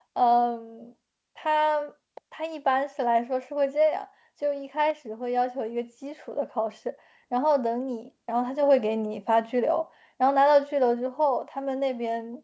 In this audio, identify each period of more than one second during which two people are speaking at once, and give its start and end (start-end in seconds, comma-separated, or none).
none